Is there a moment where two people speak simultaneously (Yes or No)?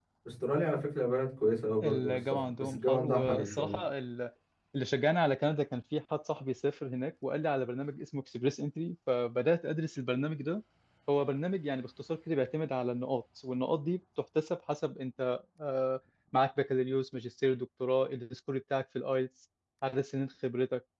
Yes